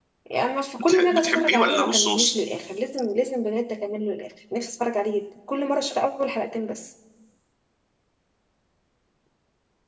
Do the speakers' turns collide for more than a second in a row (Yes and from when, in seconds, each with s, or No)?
Yes, from 0.8 s